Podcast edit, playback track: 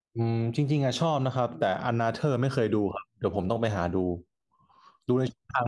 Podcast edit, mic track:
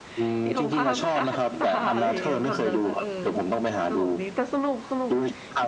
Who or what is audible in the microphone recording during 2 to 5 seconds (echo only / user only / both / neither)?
both